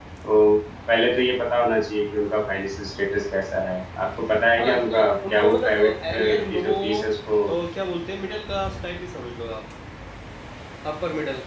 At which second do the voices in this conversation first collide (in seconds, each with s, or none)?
4.6 s